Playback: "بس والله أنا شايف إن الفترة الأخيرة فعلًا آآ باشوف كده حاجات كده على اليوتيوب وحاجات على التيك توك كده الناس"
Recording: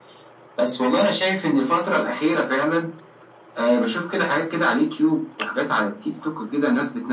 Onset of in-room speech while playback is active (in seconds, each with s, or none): none